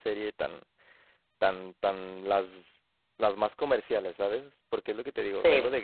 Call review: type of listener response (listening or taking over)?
listening